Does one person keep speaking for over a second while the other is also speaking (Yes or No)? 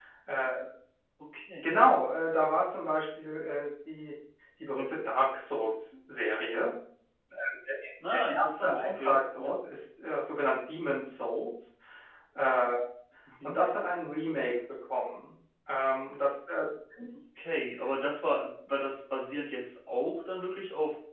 Yes